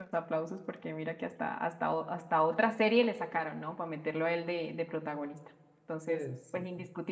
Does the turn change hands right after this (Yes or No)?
No